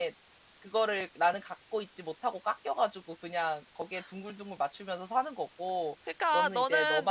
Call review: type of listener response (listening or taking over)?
taking over